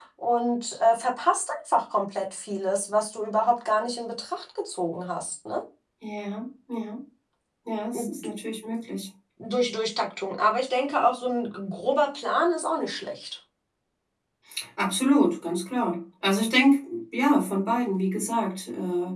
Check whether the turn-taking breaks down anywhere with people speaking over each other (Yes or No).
No